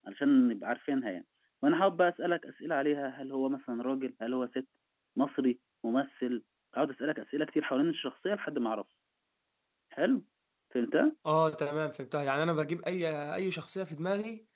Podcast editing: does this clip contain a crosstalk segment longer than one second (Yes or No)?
No